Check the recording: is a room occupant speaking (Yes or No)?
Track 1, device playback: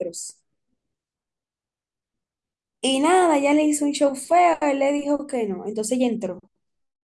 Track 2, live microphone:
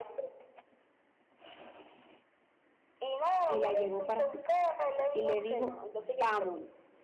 Yes